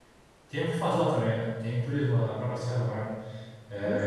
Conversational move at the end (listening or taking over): listening